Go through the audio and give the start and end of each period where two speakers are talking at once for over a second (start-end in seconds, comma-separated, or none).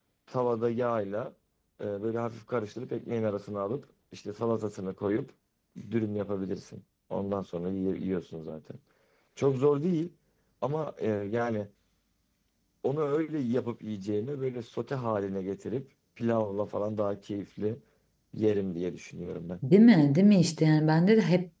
none